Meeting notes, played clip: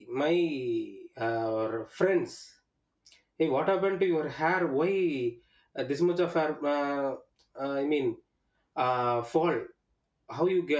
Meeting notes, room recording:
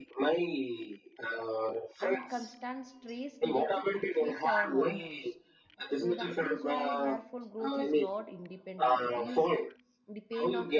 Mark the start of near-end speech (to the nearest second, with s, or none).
2 s